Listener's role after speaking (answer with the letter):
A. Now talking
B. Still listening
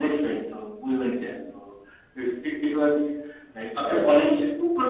A